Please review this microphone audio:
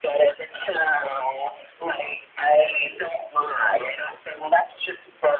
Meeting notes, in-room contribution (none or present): none